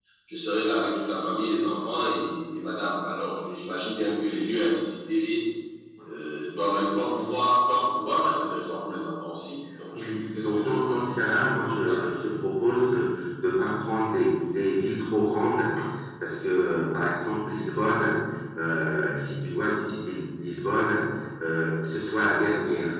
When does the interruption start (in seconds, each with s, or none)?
9.9 s